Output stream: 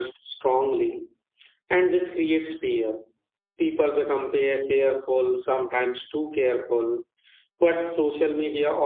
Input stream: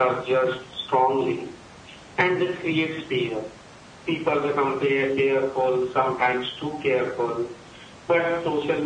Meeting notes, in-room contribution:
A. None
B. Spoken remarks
A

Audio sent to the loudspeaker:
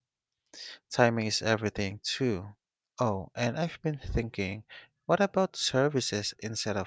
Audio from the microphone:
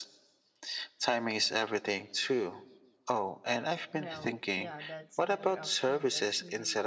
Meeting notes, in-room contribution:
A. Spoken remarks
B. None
A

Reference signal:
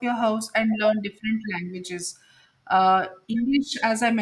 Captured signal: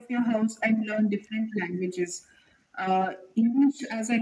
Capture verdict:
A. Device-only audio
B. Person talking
A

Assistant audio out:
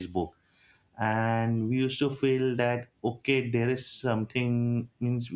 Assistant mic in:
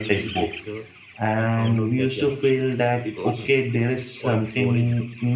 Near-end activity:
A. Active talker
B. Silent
A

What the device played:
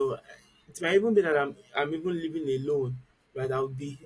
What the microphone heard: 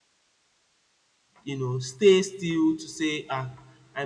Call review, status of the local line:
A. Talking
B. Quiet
A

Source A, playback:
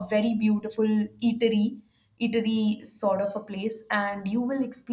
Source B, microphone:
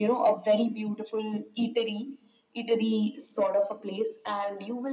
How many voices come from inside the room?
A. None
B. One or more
A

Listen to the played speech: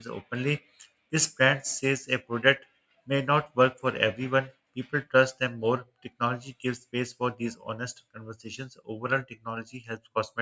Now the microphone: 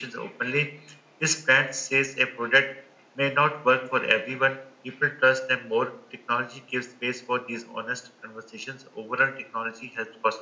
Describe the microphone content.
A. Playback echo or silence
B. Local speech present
A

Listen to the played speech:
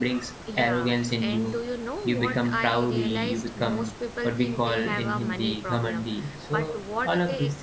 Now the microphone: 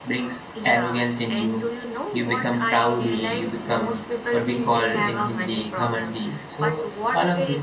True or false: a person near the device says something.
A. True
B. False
B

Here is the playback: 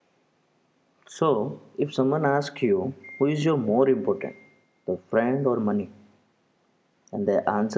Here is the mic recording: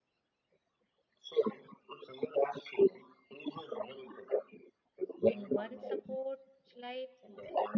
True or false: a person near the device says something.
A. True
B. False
A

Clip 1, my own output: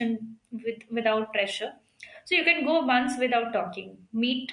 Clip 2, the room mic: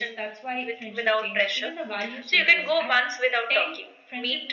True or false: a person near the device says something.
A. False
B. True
B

